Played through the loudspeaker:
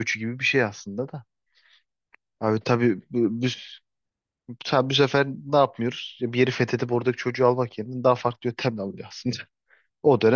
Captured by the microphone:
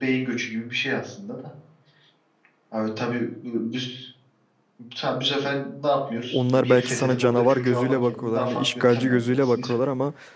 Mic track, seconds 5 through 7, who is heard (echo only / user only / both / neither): both